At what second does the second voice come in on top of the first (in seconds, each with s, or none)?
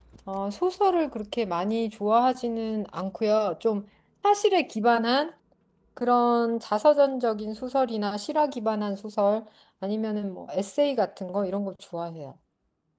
none